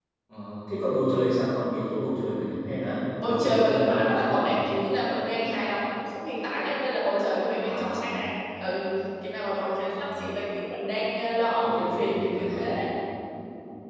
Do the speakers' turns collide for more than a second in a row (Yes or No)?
Yes